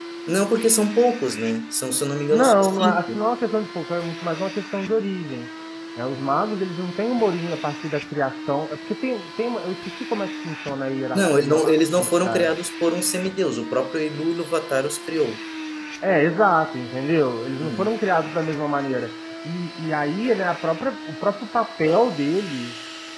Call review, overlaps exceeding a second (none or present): present